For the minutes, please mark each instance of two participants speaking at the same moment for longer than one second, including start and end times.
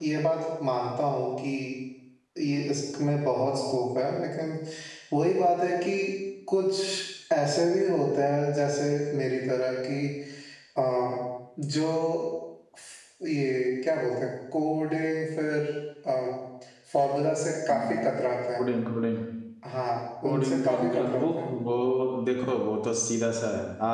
20.2-21.5

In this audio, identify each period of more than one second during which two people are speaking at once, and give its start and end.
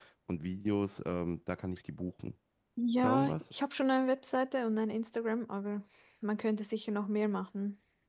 none

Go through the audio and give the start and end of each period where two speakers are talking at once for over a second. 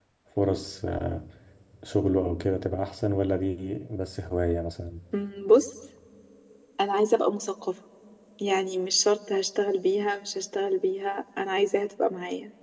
none

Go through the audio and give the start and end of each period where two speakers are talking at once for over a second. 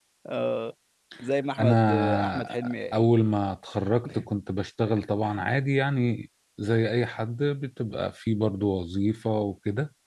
1.6-2.9

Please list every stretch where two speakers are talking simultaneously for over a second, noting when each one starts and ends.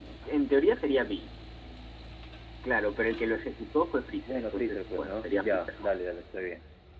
4.3-5.9

